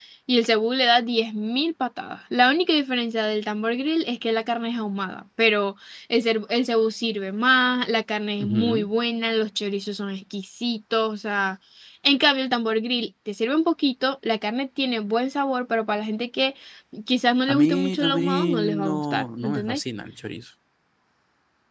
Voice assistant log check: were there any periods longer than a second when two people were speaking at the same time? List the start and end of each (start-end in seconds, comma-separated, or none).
17.5-19.8